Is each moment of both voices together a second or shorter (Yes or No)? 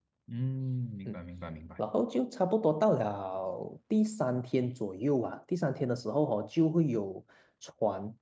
Yes